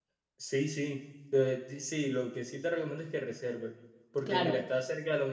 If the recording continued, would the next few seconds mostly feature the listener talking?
No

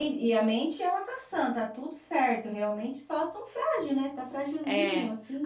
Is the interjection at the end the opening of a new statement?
Yes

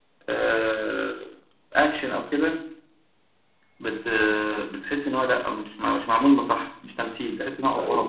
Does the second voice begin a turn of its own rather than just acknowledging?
Yes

